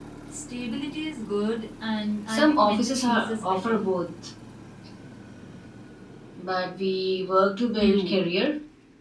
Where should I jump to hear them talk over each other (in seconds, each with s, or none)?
2.3 s